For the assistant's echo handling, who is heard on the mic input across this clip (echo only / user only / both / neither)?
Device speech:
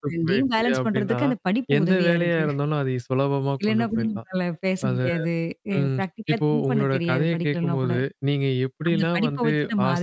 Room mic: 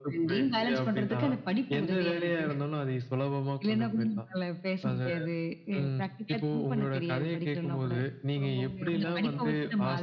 both